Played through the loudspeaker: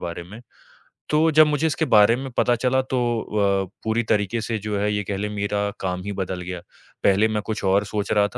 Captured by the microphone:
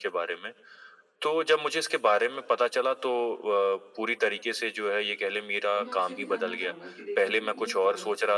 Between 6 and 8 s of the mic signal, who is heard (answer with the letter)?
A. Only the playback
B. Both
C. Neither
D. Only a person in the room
B